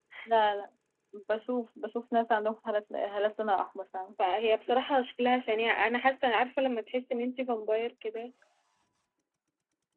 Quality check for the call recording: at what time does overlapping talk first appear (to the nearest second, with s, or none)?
none